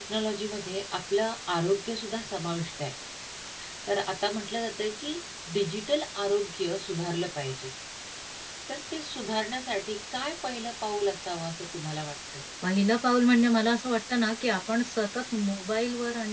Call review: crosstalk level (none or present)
none